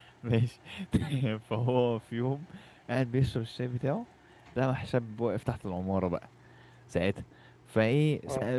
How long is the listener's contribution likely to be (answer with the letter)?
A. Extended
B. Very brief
B